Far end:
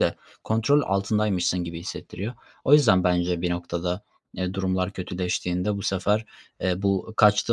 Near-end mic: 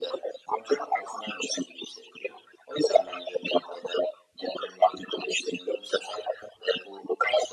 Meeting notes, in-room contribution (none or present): none